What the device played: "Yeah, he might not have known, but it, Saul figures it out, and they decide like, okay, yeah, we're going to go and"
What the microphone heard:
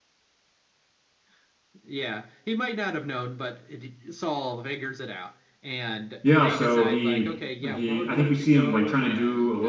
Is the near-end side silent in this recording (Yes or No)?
No